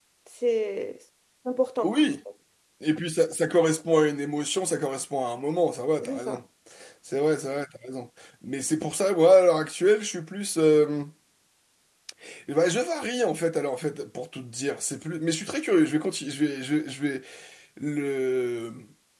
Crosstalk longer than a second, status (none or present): none